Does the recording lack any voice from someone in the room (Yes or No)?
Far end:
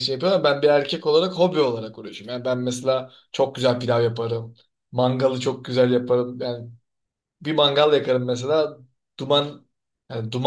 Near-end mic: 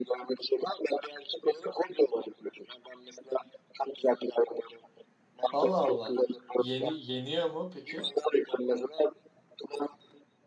No